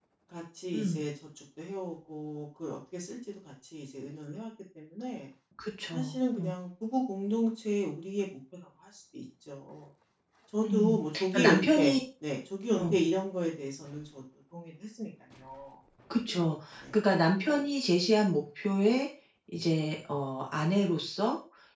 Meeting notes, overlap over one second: present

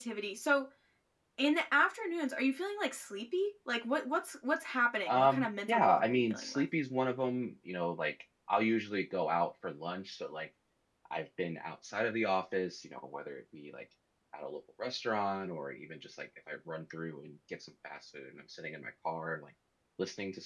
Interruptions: present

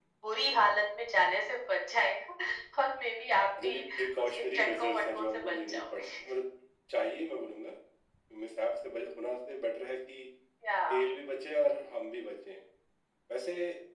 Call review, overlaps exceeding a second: present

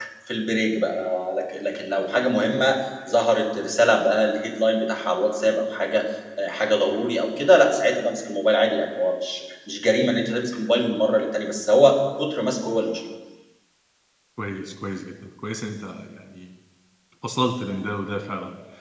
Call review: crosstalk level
none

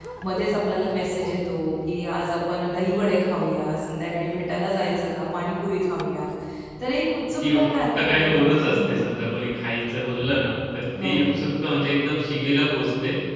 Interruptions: present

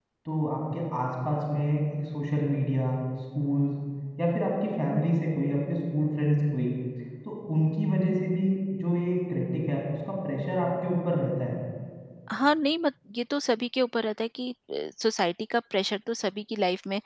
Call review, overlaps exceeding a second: none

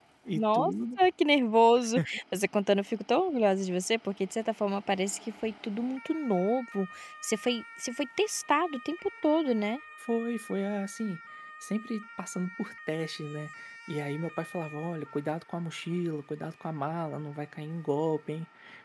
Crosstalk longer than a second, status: none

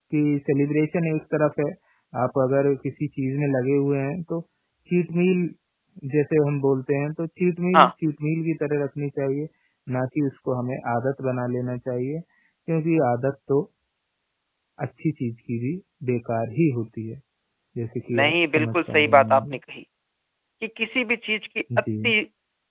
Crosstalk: present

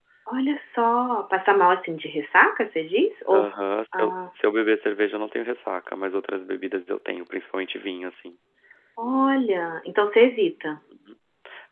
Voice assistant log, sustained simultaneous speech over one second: none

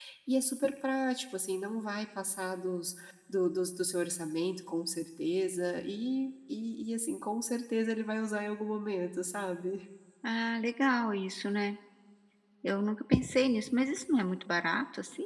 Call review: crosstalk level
none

